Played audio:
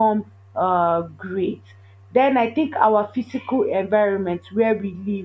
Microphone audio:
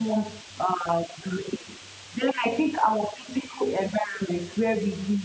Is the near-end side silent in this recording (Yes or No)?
Yes